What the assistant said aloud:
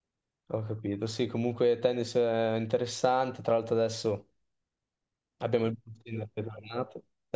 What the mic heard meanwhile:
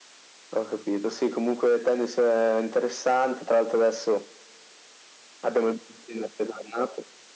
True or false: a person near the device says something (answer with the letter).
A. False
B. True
A